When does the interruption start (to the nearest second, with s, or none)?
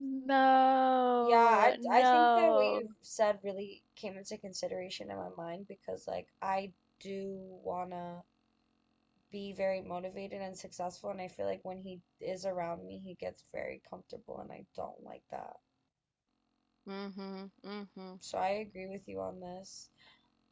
1 s